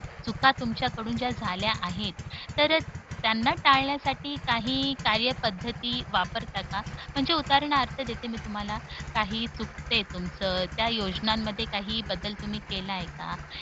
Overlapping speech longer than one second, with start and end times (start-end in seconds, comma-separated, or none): none